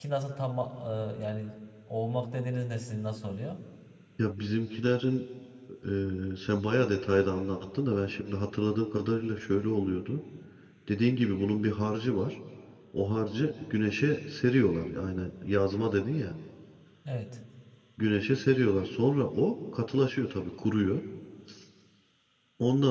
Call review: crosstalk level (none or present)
none